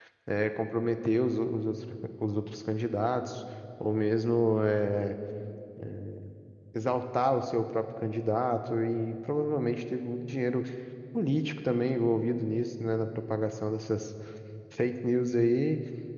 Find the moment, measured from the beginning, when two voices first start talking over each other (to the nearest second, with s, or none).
none